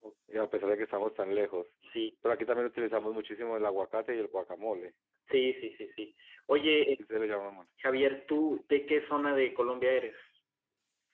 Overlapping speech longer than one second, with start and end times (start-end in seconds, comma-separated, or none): none